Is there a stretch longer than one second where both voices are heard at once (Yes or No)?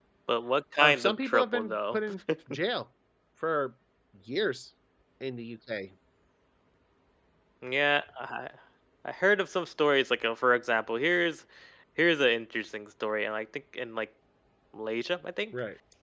Yes